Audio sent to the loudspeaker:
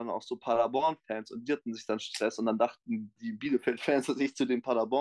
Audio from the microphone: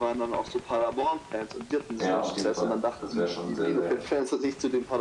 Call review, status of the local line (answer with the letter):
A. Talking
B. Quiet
A